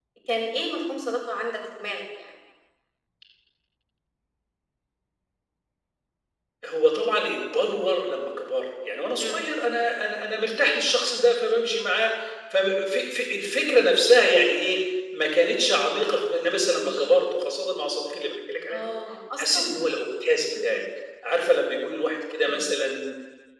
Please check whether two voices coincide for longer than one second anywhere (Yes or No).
No